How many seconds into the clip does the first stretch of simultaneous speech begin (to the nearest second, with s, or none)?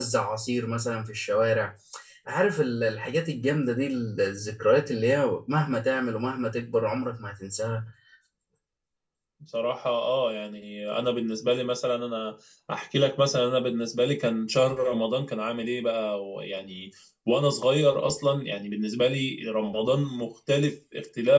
none